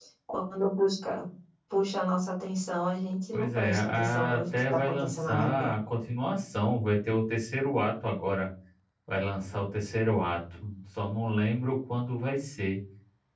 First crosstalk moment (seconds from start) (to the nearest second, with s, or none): 3 s